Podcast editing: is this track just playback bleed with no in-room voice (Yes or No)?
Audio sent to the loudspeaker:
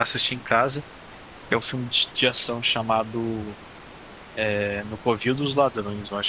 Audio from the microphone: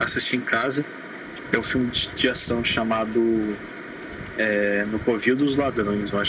Yes